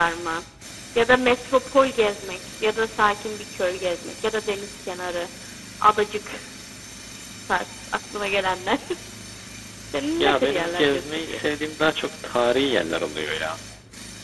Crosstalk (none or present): present